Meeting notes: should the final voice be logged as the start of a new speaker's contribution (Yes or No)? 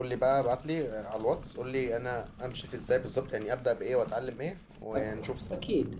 Yes